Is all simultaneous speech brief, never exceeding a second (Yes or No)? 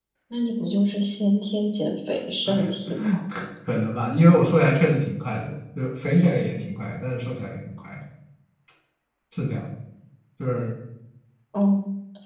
Yes